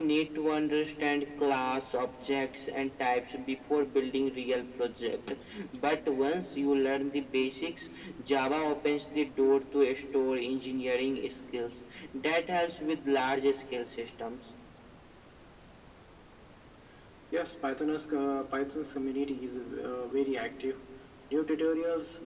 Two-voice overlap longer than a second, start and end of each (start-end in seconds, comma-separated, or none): none